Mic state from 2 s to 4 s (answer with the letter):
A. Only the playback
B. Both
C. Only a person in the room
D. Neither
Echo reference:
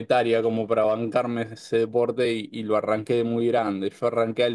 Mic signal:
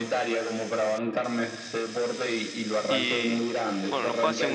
B